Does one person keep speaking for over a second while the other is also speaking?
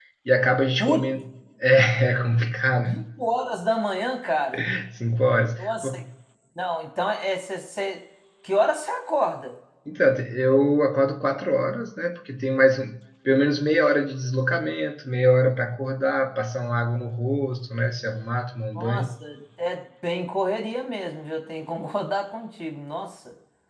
No

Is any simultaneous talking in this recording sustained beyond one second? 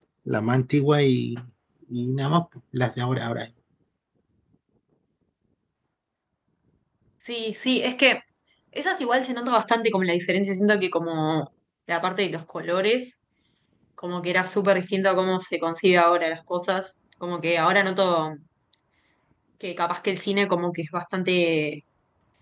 No

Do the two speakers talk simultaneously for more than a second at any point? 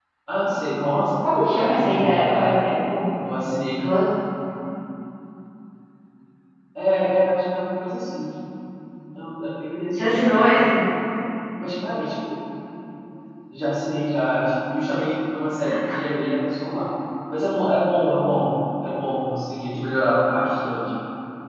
Yes, from 1.2 s

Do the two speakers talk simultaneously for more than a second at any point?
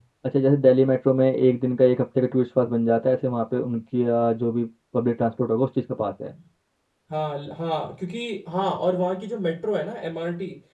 No

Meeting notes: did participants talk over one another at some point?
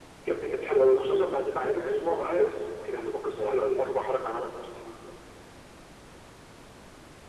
Yes, from 1.0 s

